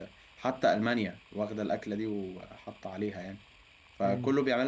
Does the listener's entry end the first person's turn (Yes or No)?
No